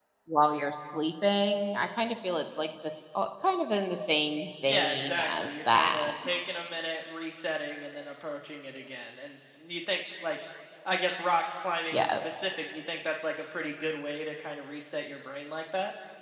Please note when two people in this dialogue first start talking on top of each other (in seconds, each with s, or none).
4.7 s